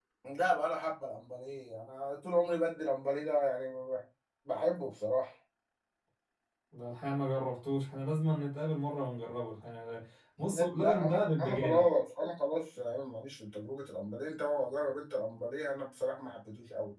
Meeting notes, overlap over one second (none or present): present